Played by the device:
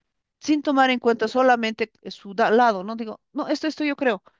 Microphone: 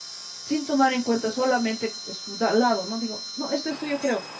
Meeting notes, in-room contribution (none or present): none